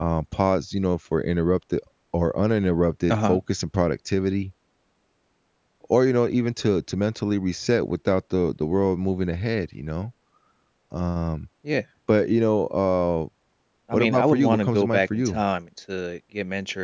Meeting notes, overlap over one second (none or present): present